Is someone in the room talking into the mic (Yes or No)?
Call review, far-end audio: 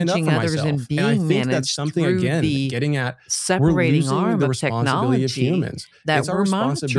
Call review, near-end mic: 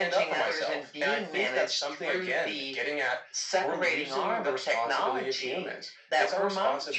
No